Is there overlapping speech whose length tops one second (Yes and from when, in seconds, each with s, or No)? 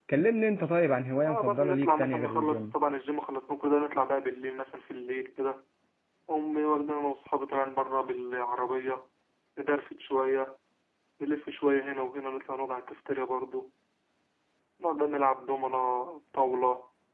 Yes, from 1.2 s